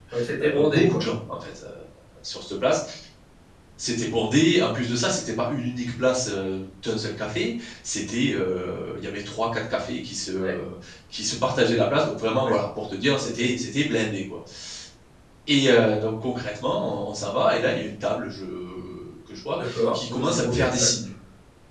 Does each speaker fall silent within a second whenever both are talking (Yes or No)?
No